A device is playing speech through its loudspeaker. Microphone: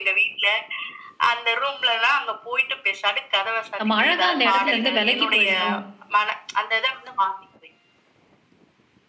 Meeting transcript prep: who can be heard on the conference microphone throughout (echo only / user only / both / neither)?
both